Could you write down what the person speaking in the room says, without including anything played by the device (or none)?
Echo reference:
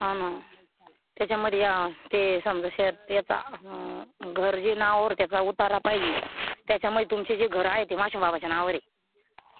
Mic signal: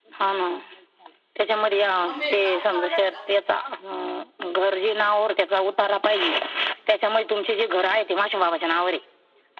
मम्मी काळ कळालाय का